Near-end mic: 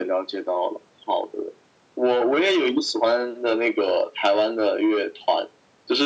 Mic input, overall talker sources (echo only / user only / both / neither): echo only